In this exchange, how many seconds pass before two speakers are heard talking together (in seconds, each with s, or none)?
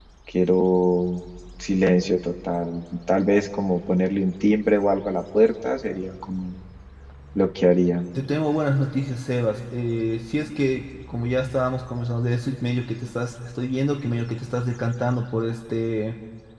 none